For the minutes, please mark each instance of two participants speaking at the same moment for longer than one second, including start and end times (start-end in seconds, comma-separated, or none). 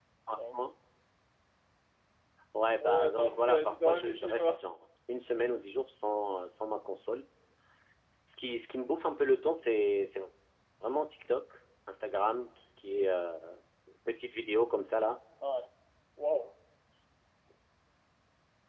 2.8-4.5